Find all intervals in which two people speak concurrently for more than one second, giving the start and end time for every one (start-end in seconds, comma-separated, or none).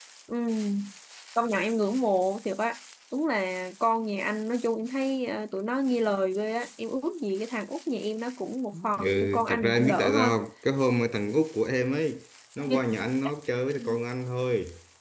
8.9-10.3